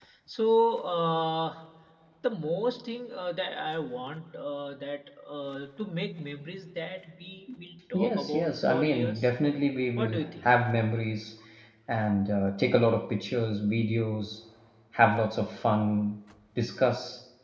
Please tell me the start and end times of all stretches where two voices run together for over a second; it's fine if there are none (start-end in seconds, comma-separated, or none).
7.9-9.3